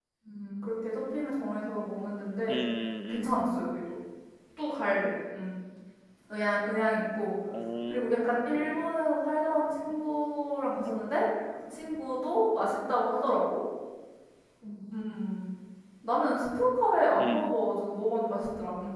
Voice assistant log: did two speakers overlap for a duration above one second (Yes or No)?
No